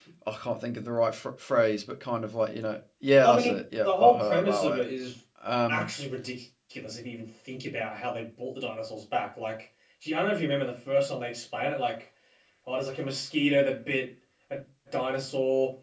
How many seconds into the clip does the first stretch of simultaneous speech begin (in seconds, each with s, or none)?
3.1 s